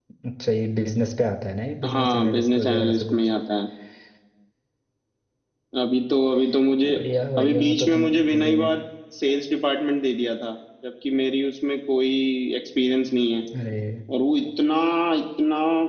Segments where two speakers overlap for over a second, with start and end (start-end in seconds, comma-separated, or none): 1.9-3.2, 7.4-8.7